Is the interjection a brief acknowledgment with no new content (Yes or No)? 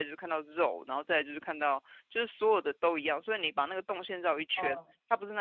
Yes